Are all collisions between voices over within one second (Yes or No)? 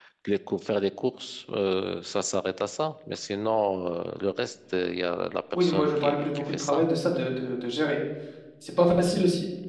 No